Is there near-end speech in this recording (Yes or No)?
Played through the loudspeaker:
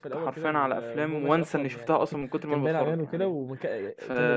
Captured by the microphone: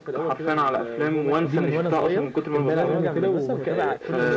Yes